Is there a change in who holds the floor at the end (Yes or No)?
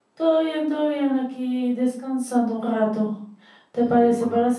No